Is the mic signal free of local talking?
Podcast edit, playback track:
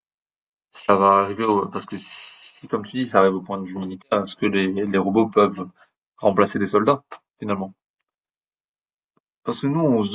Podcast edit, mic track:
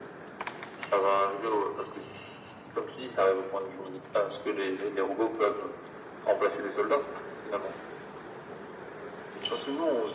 Yes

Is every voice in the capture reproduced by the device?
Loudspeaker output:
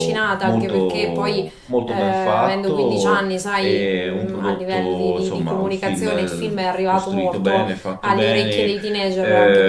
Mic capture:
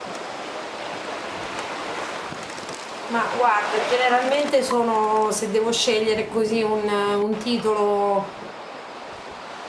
No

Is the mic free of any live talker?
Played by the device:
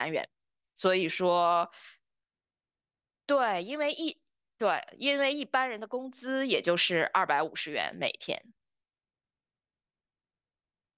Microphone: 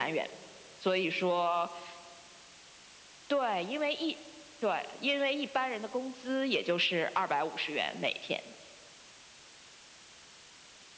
Yes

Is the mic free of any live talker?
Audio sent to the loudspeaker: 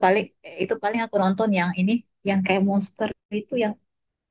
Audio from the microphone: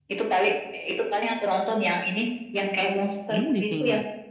No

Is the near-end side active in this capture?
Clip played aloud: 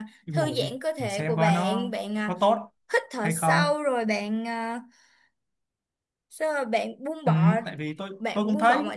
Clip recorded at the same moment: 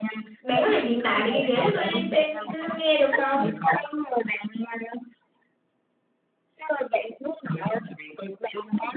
Yes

